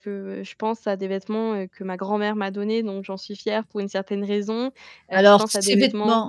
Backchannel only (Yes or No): No